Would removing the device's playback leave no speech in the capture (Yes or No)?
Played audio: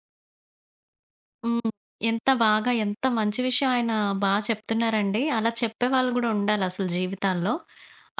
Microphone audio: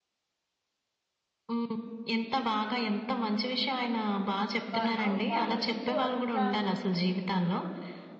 No